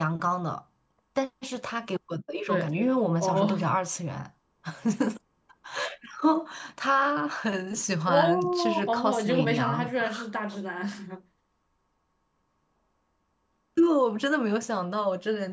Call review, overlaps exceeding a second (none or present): present